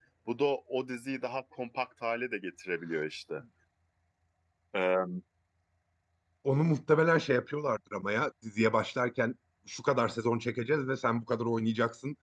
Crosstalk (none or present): none